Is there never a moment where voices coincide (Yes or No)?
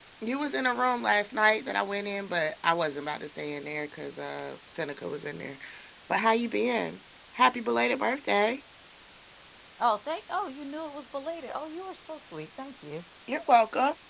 Yes